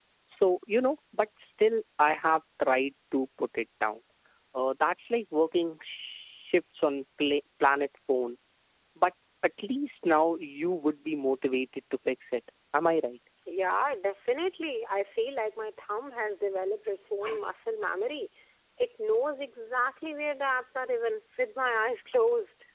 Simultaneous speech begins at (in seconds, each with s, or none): none